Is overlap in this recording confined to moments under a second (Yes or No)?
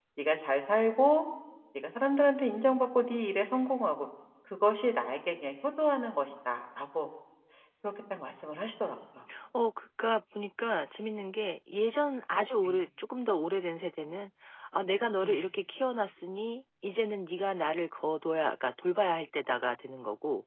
Yes